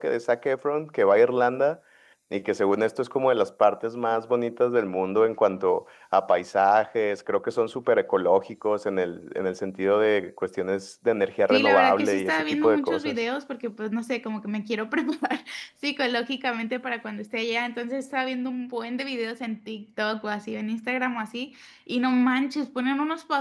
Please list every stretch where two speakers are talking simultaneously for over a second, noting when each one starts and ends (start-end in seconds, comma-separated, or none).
11.5-13.1